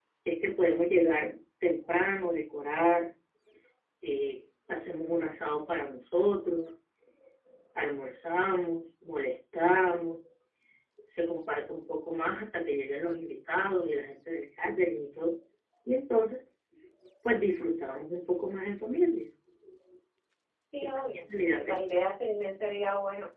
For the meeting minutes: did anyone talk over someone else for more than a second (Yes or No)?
Yes